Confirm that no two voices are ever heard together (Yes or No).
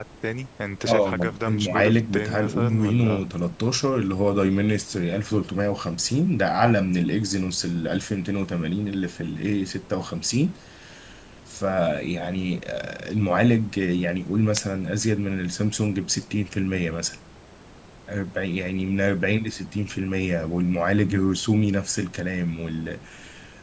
No